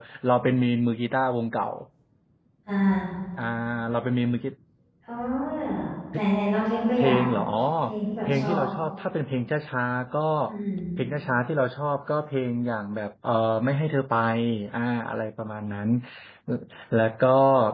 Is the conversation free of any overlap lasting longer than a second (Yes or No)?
Yes